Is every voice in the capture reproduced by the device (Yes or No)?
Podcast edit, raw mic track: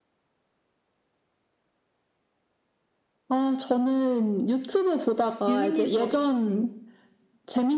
No